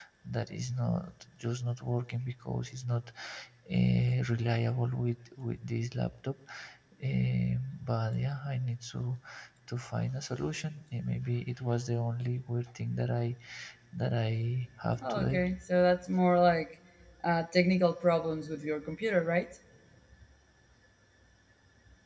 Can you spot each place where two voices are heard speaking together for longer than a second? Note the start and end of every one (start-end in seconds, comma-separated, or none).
none